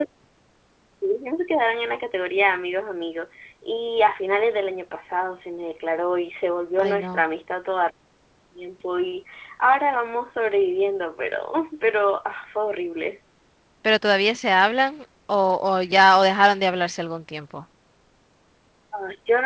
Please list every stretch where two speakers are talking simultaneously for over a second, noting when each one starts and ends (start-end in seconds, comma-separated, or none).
none